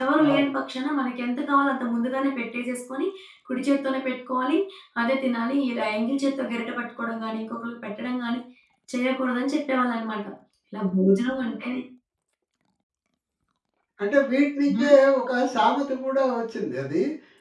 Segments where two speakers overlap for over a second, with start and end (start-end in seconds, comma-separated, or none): none